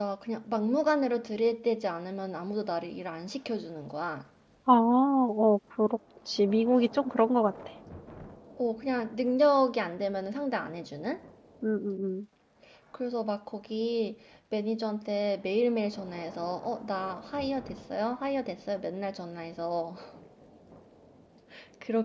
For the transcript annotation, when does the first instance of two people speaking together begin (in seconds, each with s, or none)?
none